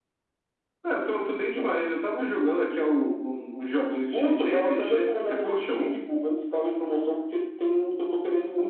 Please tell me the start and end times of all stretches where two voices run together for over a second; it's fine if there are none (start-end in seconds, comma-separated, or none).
4.1-6.0